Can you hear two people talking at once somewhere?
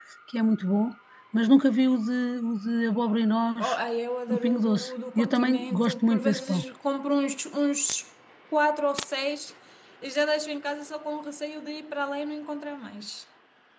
Yes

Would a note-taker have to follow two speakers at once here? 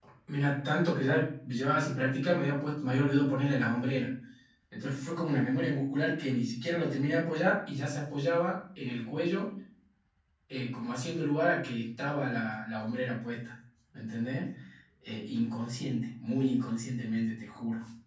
No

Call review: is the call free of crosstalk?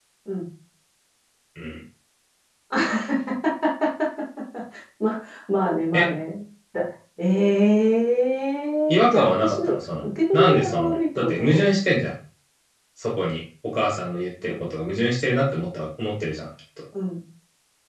No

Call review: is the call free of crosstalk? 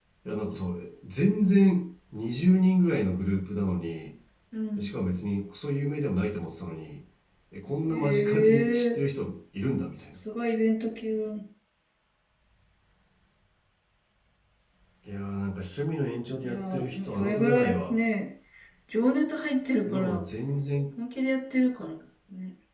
No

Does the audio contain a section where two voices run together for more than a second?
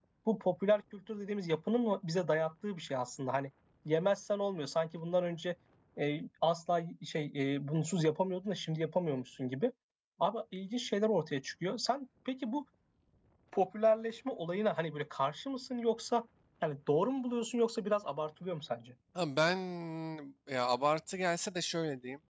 No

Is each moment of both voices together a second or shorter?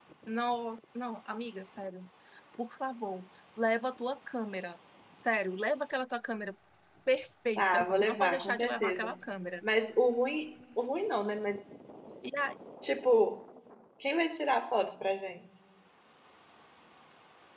No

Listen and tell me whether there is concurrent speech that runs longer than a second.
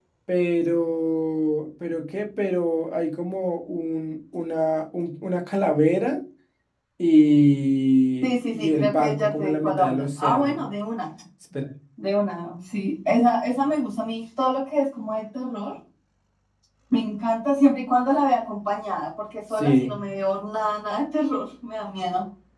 Yes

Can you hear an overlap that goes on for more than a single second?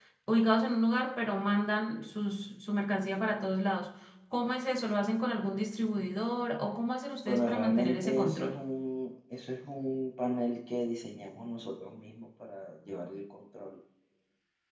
Yes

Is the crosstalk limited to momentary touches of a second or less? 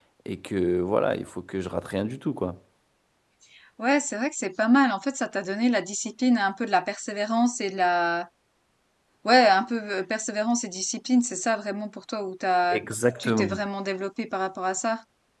Yes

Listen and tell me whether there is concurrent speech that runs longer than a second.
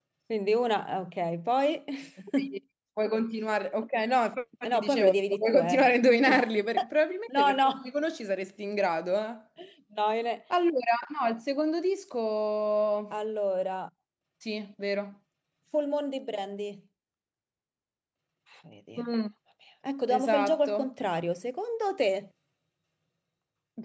Yes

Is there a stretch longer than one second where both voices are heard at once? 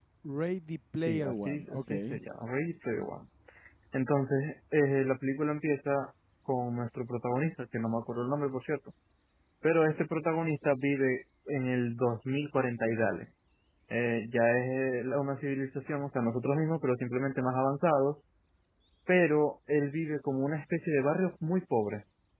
Yes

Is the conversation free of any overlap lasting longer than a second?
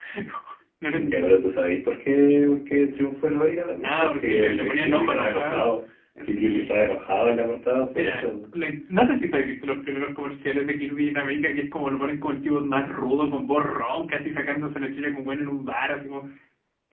No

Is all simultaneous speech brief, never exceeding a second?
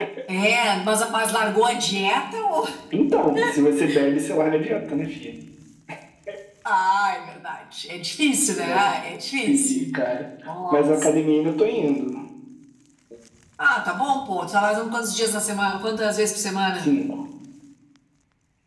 Yes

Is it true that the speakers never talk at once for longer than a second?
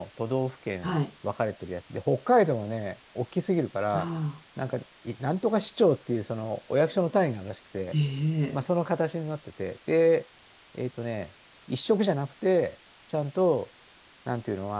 Yes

